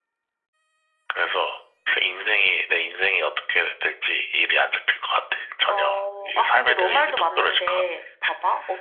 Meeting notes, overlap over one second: present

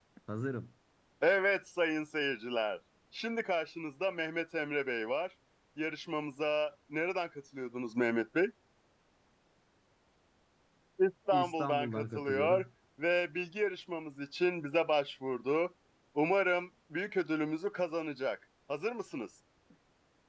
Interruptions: present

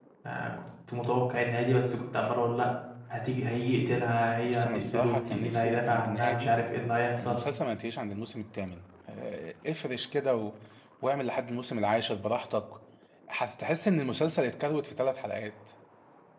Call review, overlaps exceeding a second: present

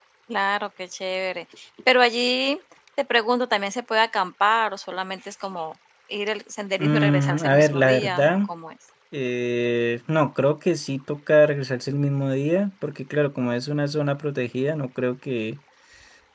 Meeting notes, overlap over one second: present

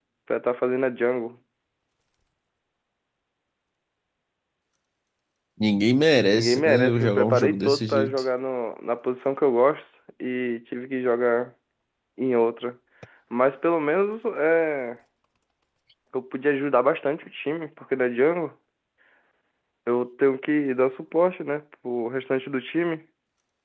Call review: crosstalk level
present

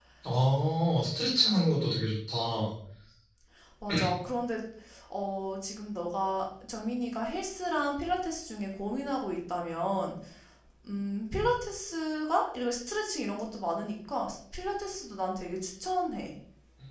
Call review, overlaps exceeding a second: none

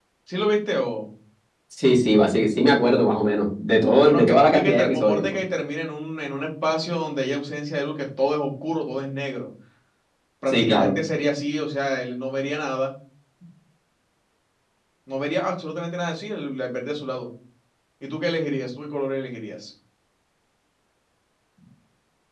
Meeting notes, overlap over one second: present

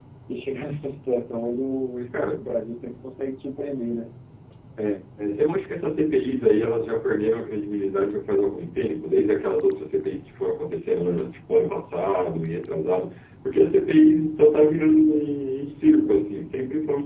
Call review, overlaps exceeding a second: none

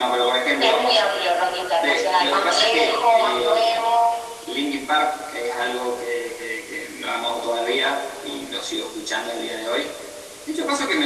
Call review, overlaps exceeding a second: present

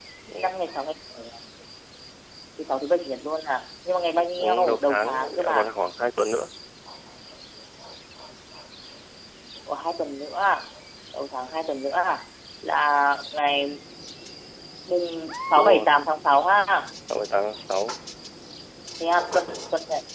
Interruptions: present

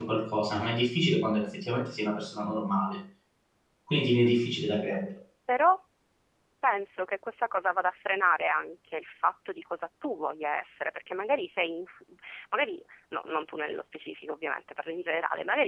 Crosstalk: none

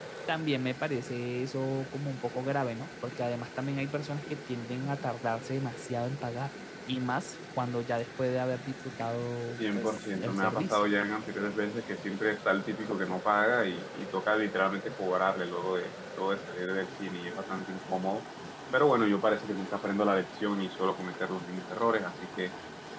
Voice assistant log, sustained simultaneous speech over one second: present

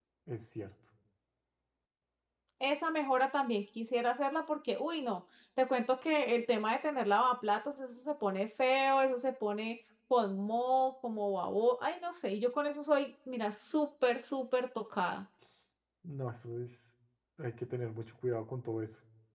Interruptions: none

